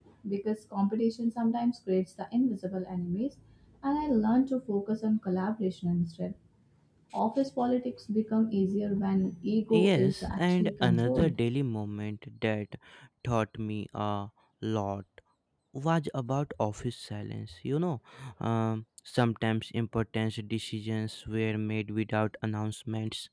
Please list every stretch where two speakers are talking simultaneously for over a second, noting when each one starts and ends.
9.7-11.3

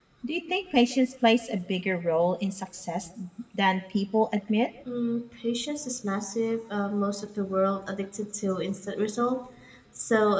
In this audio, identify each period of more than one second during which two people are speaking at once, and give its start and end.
none

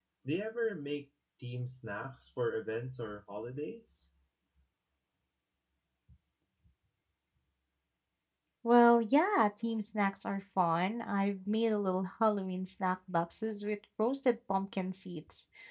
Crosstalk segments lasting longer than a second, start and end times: none

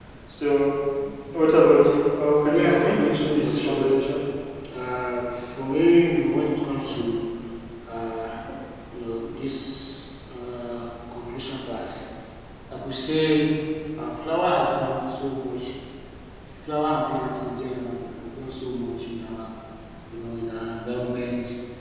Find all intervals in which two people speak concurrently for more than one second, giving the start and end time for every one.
2.5-4.0

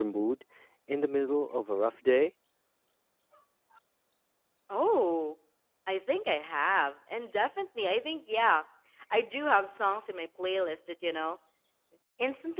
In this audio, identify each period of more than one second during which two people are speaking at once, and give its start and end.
none

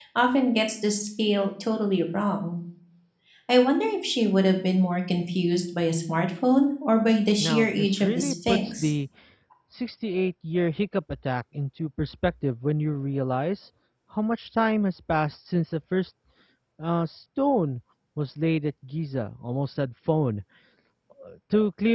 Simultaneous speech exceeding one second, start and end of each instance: 7.4-8.9

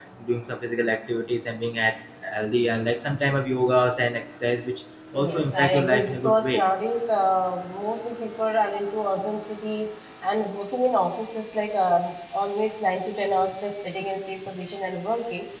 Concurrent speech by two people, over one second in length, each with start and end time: 5.1-6.7

